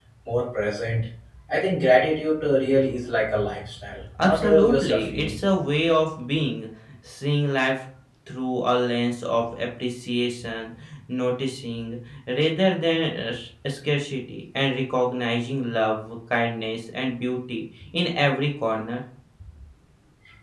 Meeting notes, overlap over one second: present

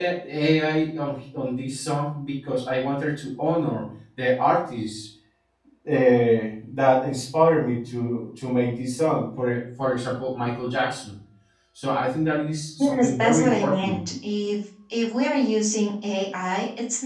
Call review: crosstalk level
present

